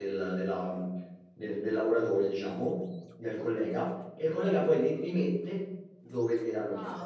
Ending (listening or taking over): taking over